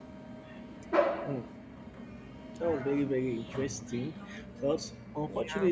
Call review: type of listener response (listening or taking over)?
listening